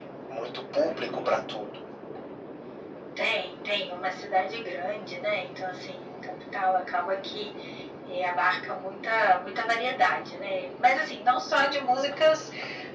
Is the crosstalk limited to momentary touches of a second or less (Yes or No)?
Yes